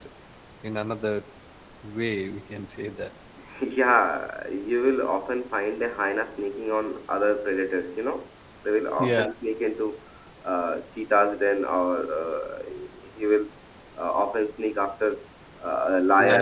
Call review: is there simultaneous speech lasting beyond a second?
No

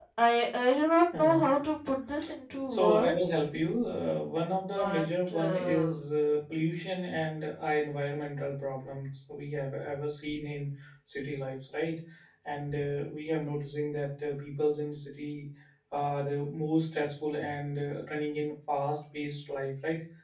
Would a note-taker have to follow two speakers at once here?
Yes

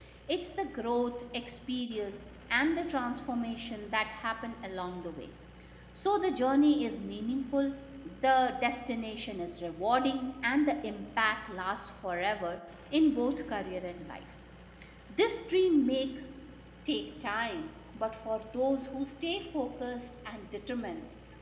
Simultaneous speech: No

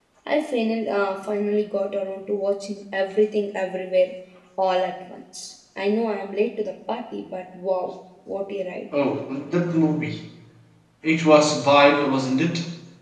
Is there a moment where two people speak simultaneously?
No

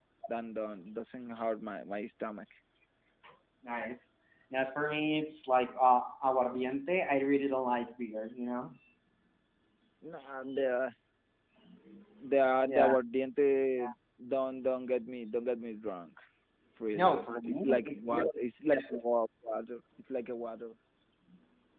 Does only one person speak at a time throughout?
No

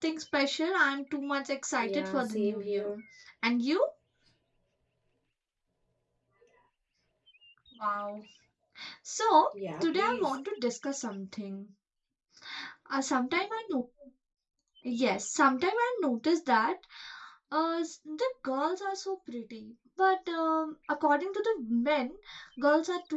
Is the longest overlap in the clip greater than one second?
Yes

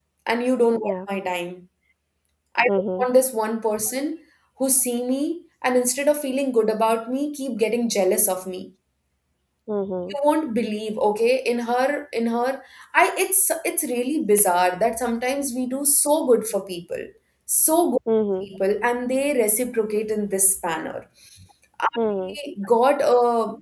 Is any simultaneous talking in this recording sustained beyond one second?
No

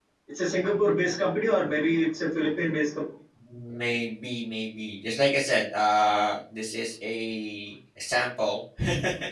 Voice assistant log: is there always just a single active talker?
Yes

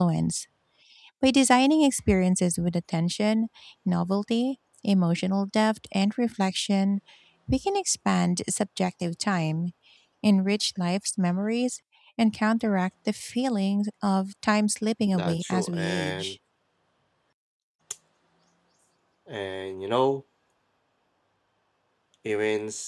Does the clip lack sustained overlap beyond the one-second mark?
No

